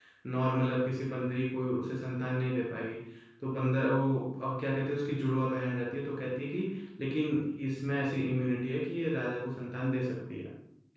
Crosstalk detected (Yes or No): No